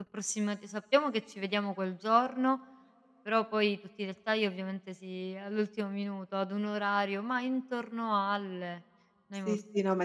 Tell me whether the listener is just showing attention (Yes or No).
No